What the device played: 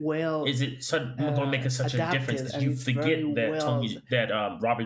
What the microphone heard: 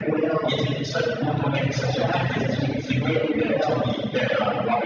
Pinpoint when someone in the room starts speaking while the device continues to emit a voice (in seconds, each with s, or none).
none